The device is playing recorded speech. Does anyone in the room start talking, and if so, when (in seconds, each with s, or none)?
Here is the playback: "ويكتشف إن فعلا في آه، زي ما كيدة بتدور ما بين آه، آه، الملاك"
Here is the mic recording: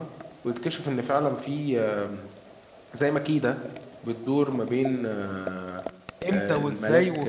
6.3 s